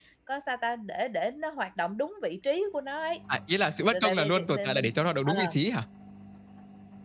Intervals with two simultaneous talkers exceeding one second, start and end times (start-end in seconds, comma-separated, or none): 3.9-5.5